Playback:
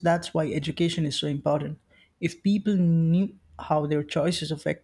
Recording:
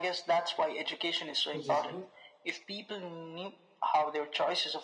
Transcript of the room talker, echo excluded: which is good.

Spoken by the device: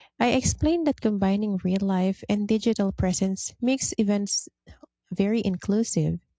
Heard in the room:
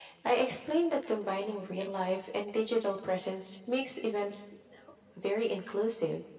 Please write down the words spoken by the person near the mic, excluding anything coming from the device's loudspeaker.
none

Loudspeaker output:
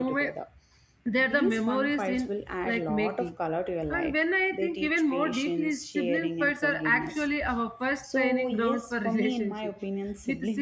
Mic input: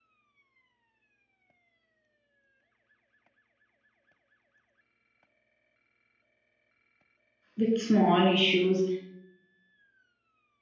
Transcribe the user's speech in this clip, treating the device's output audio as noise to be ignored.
with small issues,

